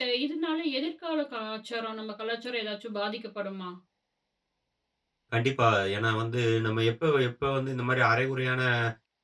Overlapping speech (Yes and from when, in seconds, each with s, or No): No